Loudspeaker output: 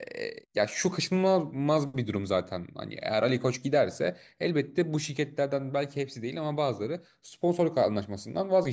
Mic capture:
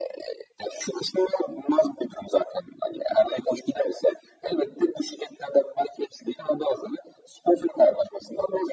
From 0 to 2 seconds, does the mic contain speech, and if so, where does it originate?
echo only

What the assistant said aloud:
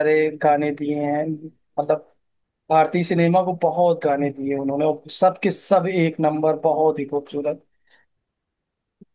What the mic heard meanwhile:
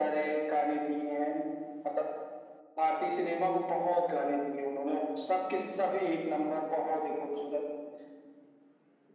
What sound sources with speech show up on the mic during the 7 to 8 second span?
echo only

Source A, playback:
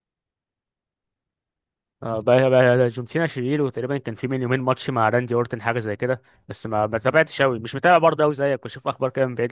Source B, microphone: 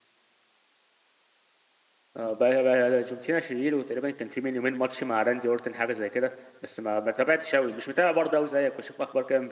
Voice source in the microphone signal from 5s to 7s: echo only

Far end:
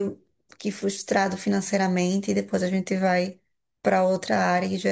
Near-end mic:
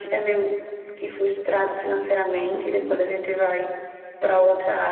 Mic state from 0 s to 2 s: echo only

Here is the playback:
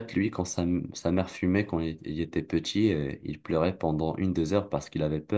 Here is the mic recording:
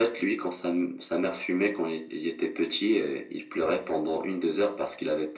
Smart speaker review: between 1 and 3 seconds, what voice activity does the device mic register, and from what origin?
echo only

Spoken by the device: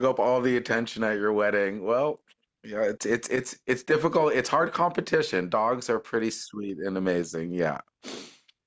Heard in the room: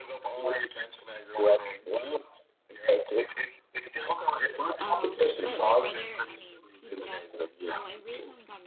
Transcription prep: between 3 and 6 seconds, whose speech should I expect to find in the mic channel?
both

